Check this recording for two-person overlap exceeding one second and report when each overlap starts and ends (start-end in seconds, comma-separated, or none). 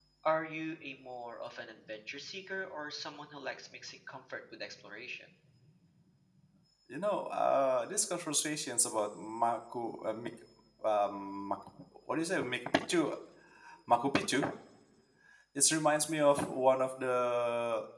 none